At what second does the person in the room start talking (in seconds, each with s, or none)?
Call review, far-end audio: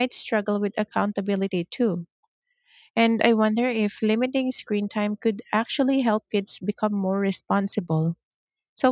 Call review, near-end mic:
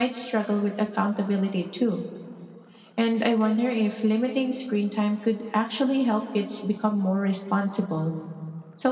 none